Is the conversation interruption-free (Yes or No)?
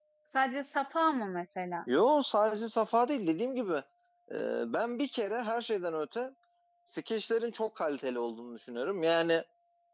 Yes